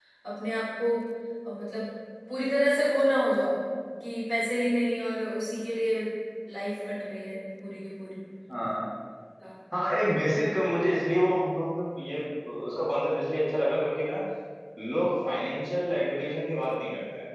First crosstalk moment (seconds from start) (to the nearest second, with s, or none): none